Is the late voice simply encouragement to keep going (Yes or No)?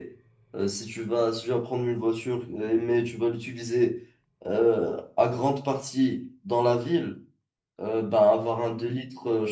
Yes